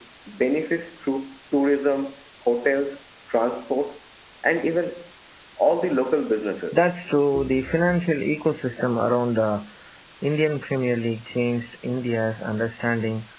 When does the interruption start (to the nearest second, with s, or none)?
none